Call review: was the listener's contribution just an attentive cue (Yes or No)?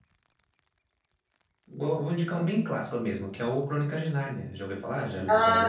No